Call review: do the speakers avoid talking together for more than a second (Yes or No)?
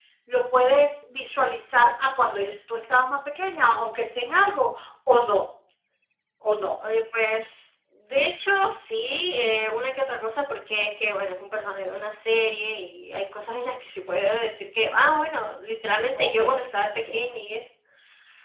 Yes